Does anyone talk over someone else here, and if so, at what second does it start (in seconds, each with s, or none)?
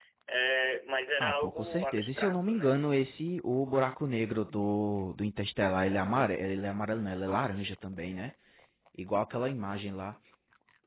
1.2 s